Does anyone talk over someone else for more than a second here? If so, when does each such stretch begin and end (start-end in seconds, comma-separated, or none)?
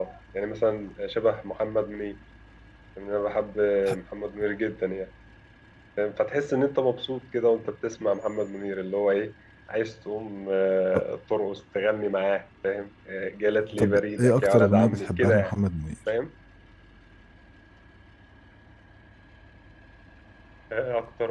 13.8-15.5